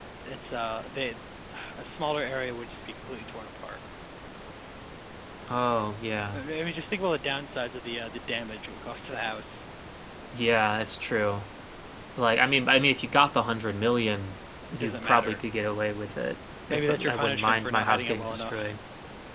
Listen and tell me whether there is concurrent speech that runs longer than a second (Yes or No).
Yes